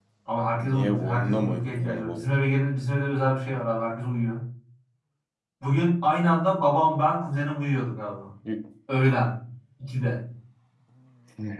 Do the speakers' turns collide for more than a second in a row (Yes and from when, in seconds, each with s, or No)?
Yes, from 0.6 s